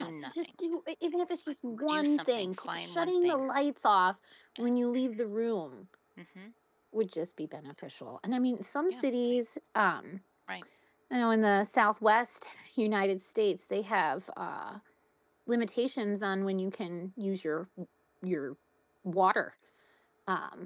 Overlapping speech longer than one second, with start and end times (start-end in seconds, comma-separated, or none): 1.9-3.4